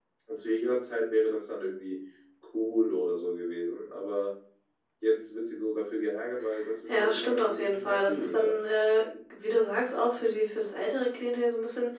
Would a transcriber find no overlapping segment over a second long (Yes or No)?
No